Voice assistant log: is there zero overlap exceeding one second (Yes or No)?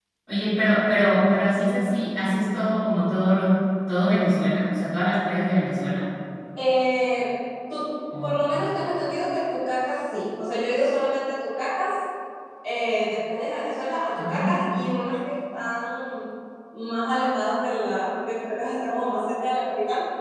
Yes